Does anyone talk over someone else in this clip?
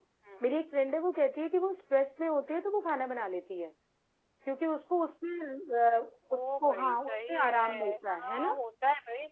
Yes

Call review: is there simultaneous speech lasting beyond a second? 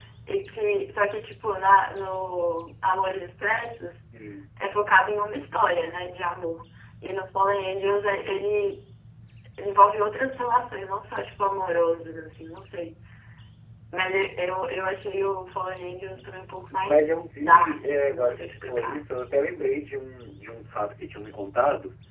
Yes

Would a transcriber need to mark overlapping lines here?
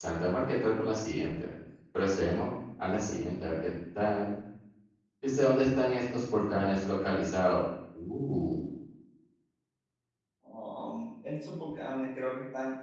No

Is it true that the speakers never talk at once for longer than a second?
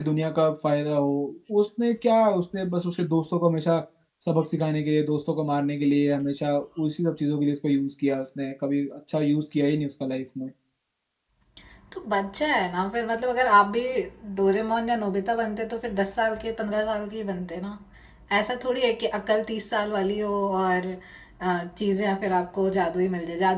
Yes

